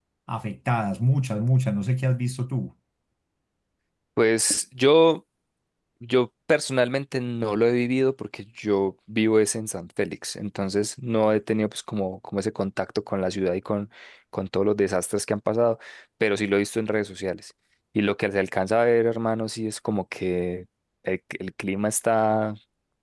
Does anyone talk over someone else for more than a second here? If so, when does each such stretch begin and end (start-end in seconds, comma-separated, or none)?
none